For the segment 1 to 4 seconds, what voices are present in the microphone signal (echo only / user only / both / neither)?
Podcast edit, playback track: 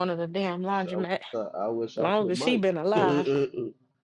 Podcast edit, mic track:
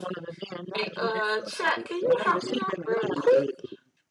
both